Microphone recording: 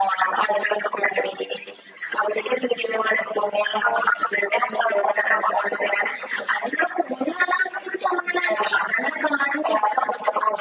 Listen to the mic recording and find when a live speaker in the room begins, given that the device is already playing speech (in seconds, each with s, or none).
none